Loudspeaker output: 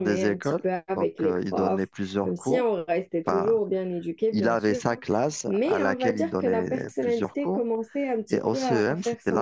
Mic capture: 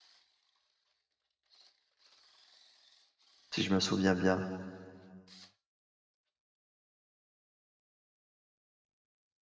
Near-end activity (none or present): present